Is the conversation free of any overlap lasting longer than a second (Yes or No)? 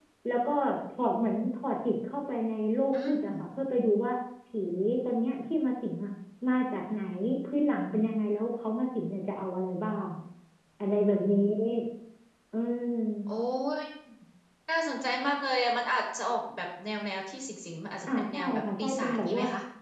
No